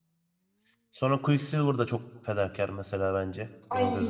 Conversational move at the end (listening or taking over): taking over